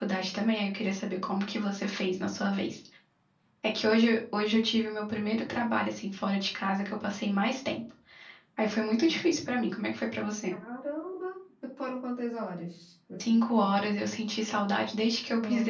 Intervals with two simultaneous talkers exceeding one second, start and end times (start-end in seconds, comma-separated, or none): none